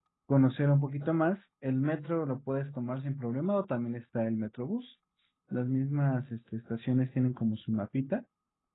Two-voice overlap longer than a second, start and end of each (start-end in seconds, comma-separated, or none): none